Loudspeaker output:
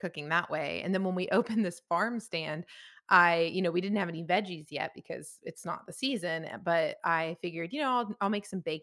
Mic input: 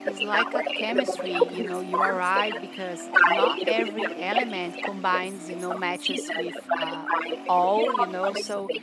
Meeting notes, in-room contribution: present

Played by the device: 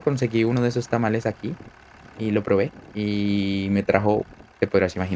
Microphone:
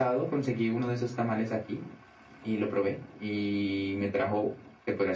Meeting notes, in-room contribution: none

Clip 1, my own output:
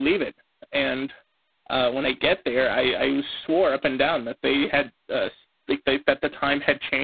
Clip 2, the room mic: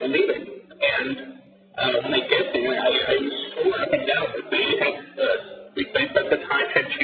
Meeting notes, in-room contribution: none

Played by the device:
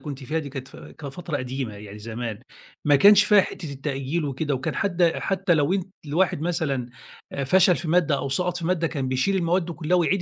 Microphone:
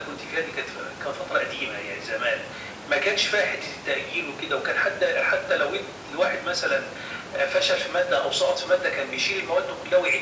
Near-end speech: none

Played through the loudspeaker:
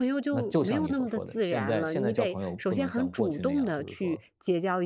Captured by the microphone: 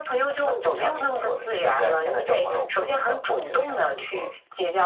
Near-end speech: none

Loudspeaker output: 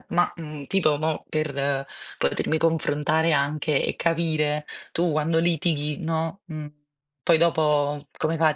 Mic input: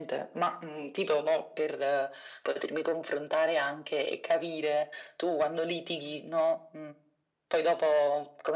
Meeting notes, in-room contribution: none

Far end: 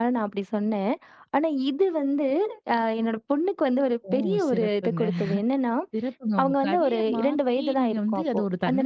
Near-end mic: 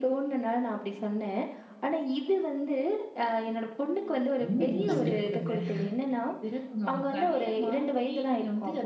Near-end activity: present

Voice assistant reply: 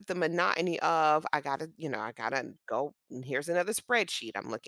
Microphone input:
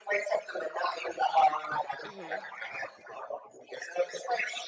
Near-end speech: present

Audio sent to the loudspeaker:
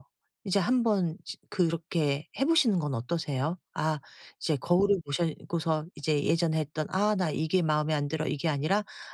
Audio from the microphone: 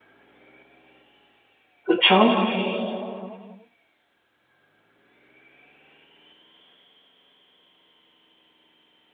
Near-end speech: present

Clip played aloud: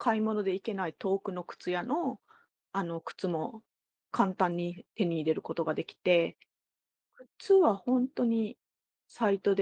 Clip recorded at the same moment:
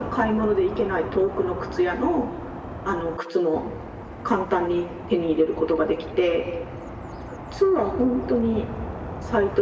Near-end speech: none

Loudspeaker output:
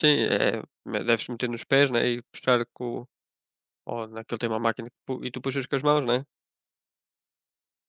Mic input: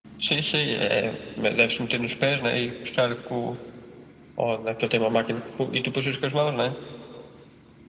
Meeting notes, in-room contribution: none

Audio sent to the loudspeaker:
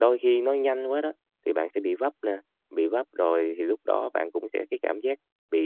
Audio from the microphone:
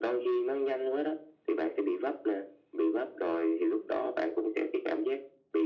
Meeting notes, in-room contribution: none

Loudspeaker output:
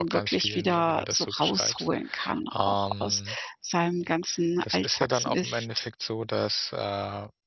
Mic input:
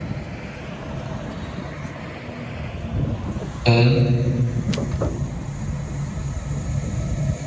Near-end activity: present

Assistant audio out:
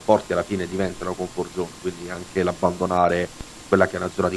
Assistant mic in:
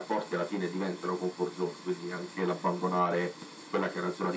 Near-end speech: none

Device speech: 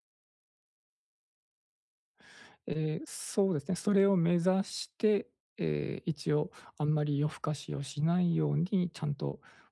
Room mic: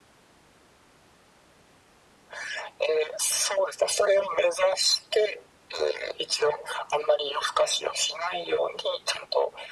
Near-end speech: none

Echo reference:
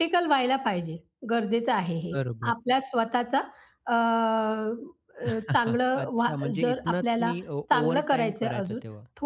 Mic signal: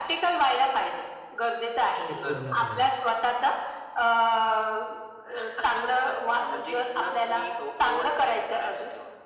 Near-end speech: present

